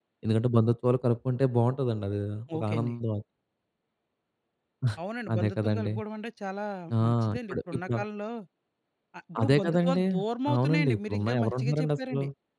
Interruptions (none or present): present